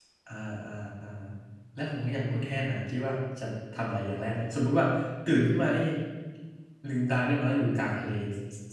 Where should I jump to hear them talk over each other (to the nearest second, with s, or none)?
none